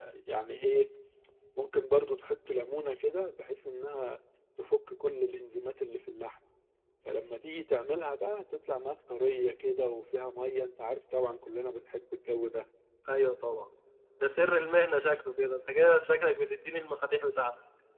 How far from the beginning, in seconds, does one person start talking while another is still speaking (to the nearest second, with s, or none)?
none